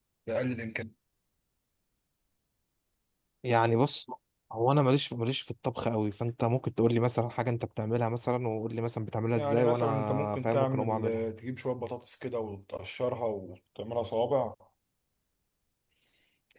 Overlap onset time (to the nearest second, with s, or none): 9 s